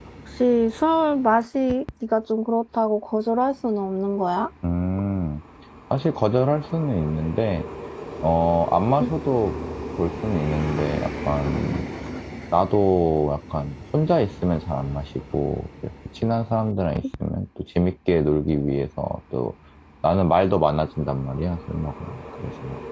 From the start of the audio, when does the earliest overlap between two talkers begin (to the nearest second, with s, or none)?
none